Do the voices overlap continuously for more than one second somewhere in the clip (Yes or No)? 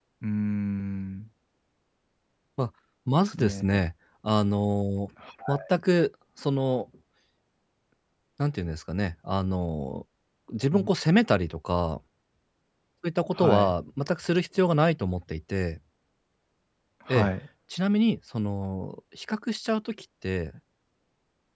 No